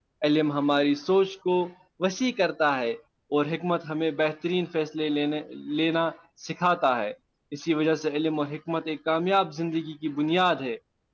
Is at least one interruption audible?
No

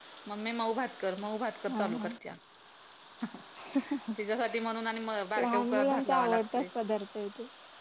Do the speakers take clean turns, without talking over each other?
No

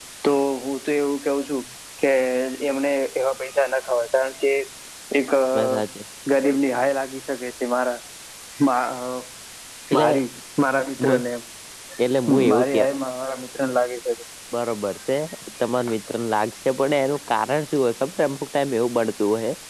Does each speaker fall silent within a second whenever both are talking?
Yes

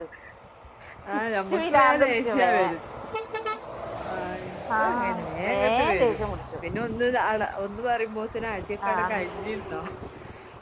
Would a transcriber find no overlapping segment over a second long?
No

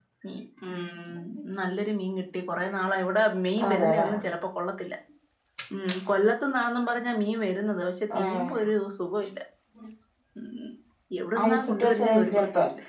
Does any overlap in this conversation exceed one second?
Yes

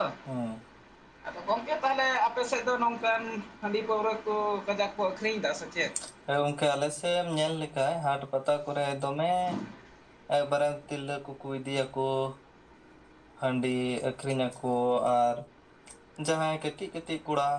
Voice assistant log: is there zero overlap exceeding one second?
Yes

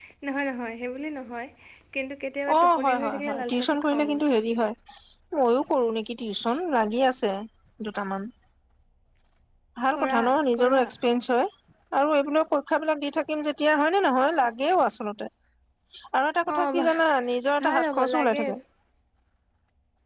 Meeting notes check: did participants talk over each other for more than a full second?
Yes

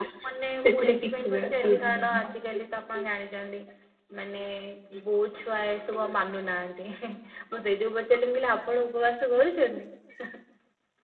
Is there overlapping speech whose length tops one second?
Yes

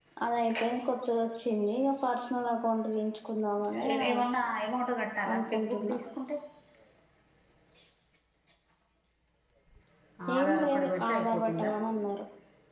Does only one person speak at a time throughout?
No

